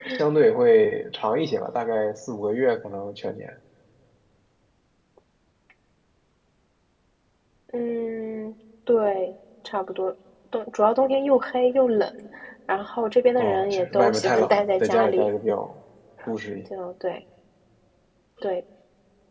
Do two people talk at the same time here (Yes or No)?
Yes